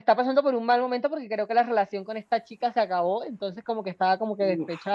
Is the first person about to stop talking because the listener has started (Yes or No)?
No